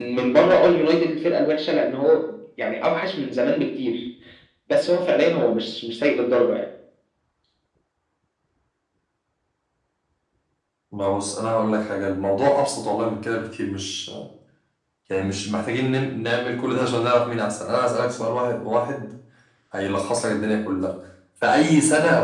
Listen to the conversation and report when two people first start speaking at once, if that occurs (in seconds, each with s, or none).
none